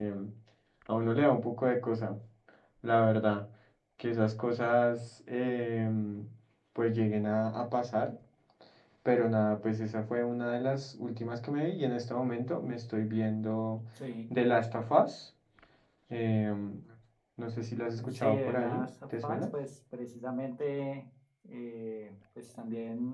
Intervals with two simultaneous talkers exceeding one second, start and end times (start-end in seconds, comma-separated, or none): 18.1-19.5